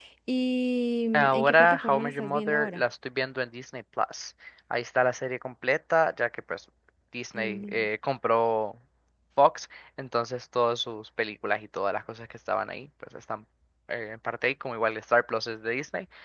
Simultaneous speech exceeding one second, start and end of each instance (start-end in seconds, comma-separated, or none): 1.1-2.8